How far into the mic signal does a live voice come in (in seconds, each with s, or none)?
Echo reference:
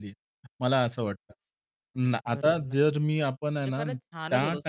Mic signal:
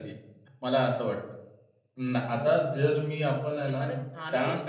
none